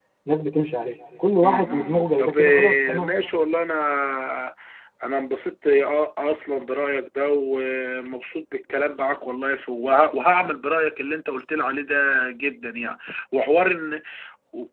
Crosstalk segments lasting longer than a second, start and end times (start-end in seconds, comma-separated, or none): 1.4-3.1